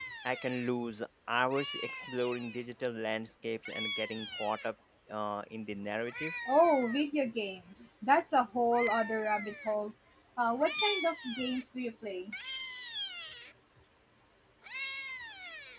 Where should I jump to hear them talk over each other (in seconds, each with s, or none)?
none